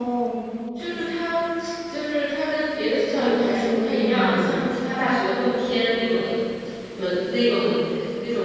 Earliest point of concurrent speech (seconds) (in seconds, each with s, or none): 3.1 s